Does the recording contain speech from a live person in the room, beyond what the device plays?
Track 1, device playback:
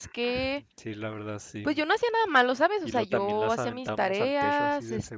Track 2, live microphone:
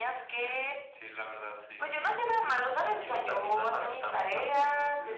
No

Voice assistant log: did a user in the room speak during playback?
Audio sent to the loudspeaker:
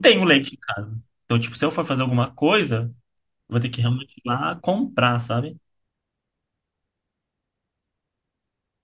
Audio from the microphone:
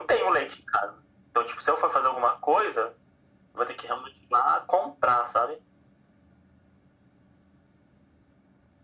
No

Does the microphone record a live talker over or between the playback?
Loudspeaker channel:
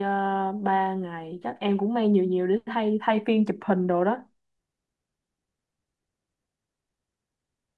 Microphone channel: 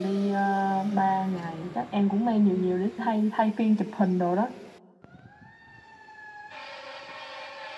No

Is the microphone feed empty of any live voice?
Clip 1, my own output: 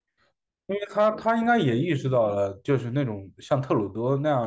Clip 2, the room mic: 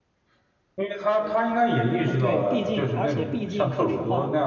No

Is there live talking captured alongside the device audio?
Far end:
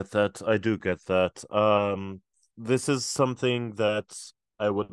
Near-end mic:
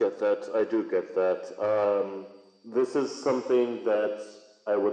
No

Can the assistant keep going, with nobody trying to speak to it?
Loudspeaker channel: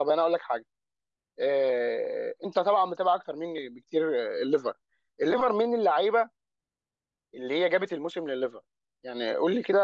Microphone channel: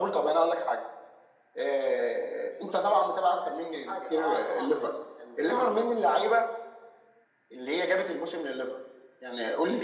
No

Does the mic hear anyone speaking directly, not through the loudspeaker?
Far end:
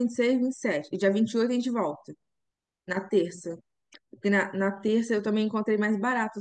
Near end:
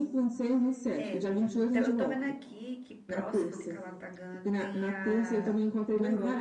Yes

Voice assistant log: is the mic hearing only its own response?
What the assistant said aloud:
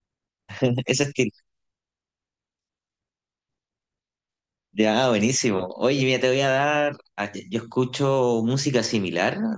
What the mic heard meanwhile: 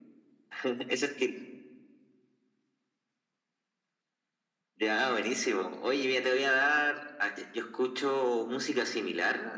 Yes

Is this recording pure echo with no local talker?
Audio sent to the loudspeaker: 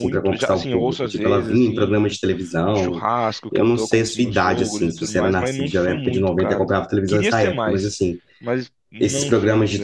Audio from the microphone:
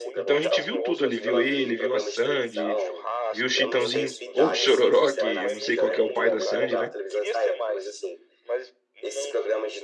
No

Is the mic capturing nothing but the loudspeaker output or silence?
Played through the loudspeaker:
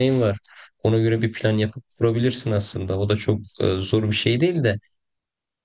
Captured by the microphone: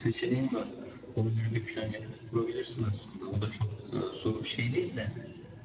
Yes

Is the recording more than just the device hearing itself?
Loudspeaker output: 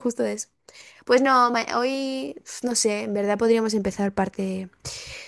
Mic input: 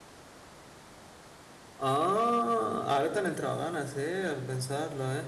Yes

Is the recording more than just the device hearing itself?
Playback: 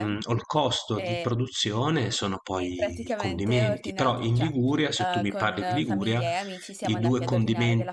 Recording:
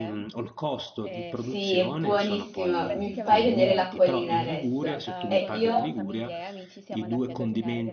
Yes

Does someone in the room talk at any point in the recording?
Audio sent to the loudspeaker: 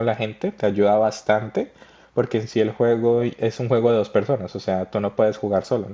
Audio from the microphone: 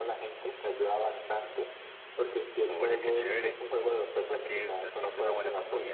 Yes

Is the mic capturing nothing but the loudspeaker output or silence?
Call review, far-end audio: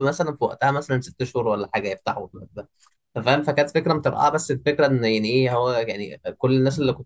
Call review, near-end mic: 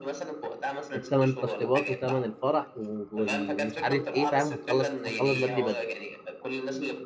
No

